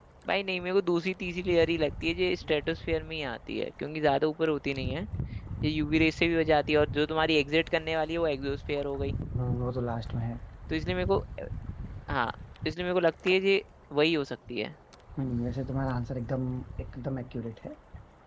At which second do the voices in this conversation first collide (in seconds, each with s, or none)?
none